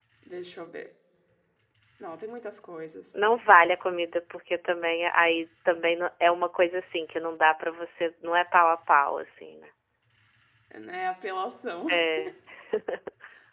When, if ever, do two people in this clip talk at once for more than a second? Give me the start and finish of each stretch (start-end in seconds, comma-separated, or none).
none